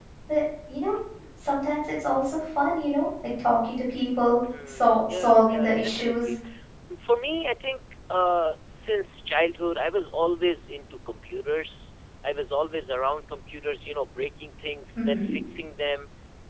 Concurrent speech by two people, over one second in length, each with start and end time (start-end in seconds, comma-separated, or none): 4.7-6.3